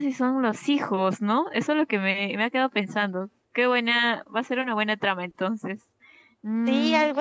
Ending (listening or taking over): taking over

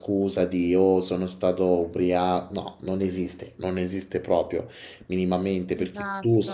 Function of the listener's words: listening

